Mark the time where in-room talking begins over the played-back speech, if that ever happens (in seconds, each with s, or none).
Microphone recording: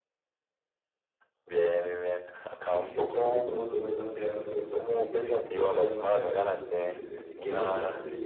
2.8 s